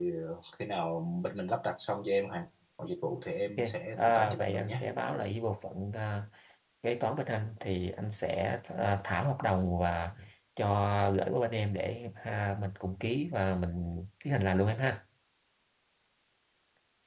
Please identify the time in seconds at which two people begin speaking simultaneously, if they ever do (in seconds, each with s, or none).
3.6 s